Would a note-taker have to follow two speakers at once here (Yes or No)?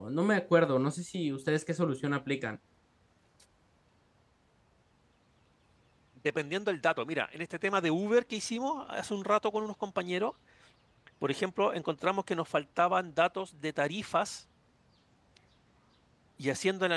No